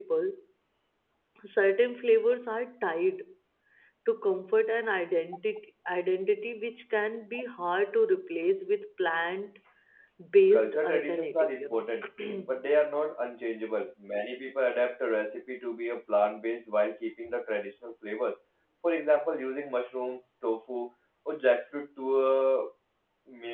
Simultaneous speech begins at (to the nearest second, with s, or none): 11 s